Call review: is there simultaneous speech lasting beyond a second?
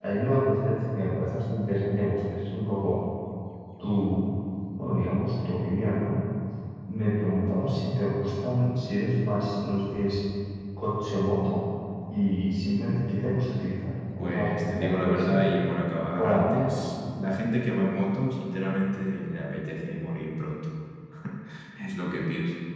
Yes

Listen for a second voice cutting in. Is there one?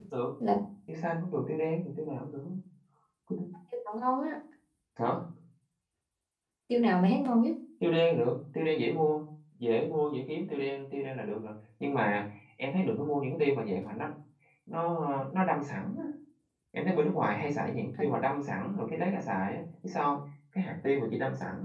No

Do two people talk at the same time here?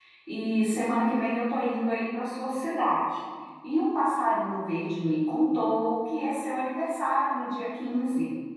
No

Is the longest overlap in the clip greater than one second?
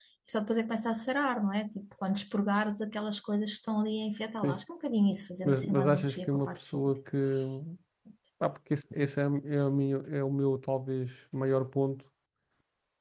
Yes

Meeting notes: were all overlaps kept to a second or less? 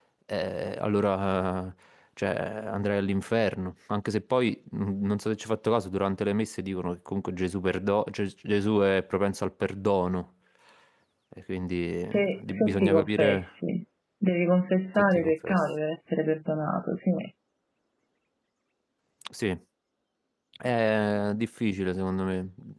No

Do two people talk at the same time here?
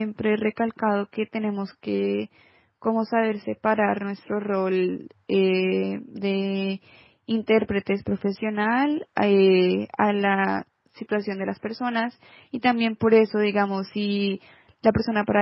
No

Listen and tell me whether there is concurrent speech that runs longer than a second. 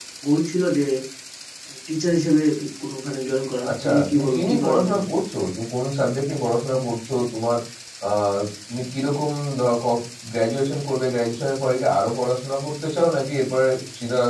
Yes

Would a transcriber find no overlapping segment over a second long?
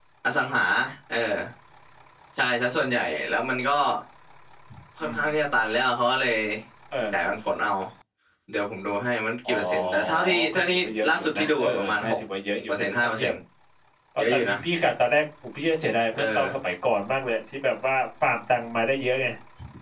No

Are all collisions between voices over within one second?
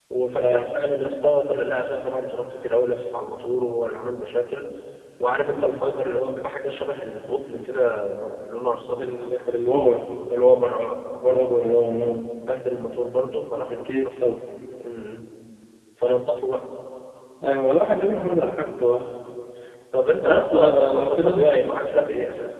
No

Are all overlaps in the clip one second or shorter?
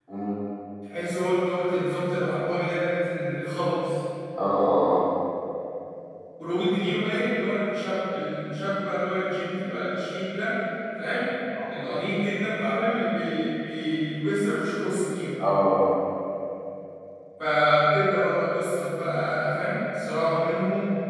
Yes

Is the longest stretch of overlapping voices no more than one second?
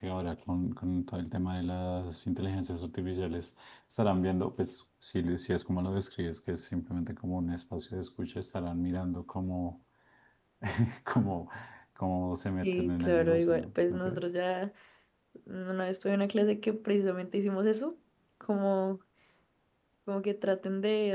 No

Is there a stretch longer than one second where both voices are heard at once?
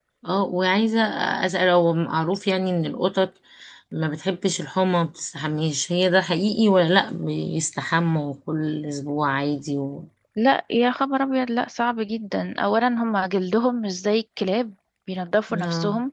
No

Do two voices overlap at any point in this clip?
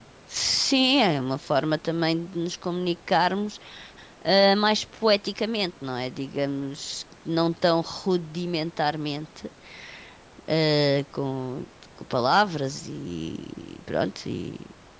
No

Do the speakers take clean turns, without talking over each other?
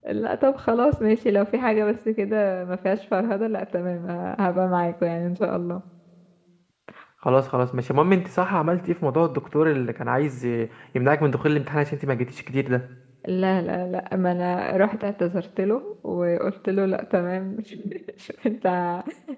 Yes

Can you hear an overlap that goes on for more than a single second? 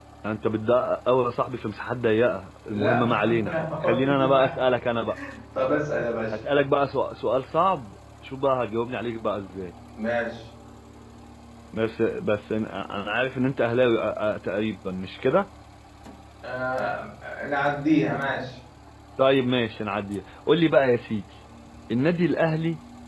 Yes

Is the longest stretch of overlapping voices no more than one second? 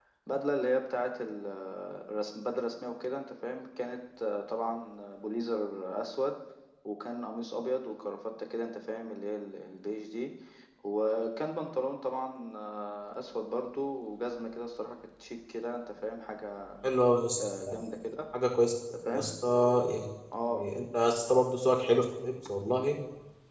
Yes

